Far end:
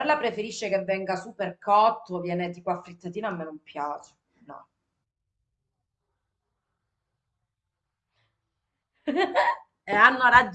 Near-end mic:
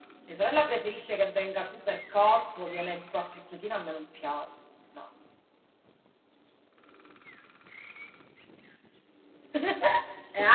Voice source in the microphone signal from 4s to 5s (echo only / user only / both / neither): echo only